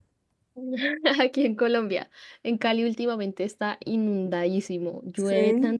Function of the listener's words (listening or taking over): listening